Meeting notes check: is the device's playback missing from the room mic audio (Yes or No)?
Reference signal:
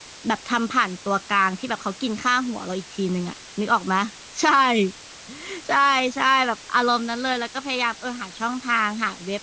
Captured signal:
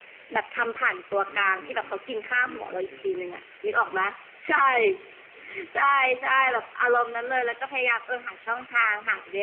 No